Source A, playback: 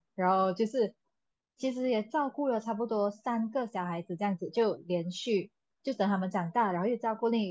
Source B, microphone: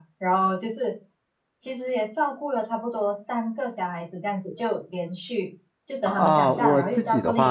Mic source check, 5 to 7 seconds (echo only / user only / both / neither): both